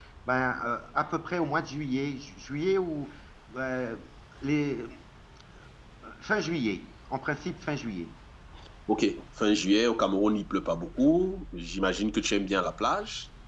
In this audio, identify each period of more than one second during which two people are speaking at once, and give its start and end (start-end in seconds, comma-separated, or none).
none